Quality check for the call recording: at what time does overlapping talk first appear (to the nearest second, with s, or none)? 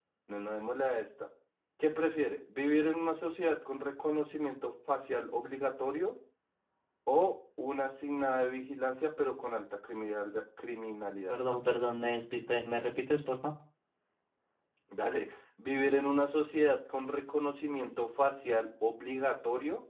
none